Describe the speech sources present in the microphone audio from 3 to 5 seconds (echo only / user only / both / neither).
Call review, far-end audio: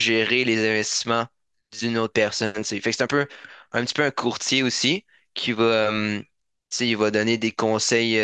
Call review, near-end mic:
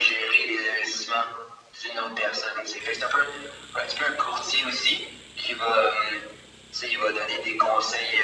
echo only